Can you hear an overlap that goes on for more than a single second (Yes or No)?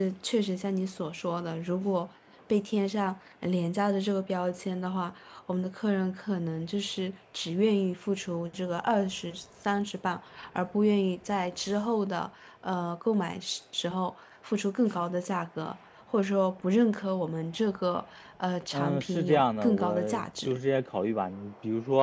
Yes